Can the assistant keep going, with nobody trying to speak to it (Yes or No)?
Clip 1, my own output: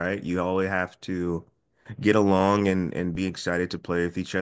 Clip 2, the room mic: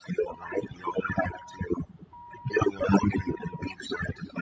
Yes